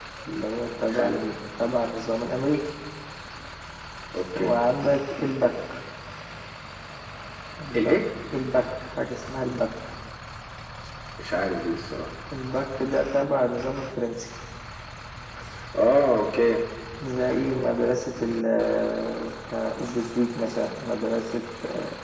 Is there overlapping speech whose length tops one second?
No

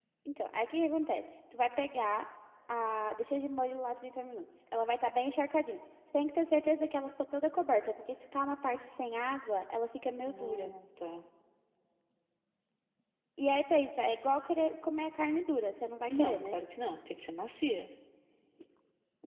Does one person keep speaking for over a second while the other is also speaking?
No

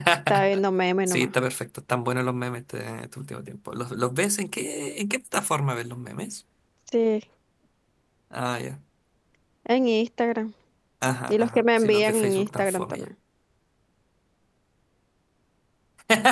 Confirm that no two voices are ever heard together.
No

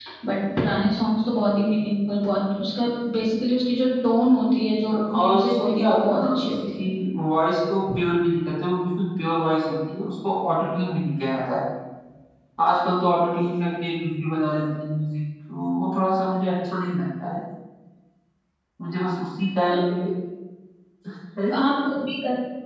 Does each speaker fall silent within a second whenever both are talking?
No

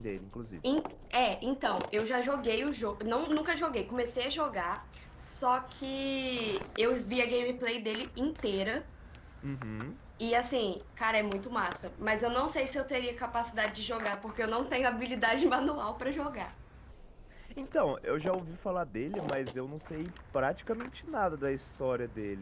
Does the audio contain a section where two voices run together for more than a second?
No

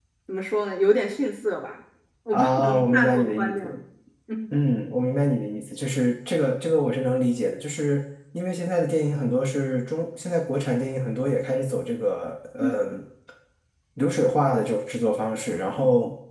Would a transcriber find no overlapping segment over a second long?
No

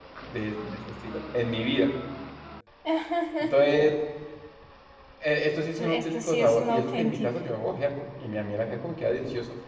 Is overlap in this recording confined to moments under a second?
No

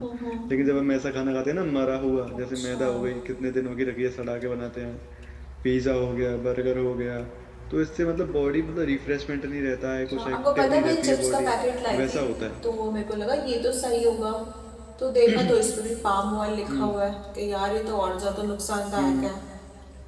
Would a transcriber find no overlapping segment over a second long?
No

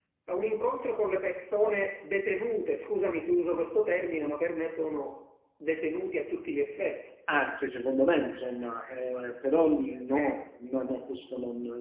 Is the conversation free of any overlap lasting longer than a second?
Yes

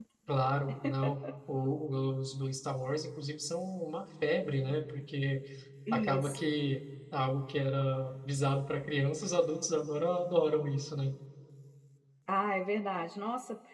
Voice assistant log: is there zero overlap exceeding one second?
Yes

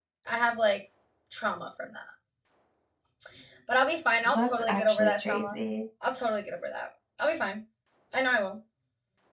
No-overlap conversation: No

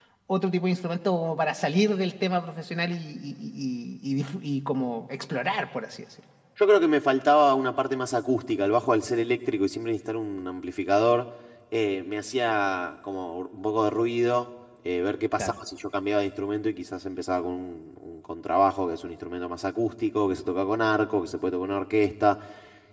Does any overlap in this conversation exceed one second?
No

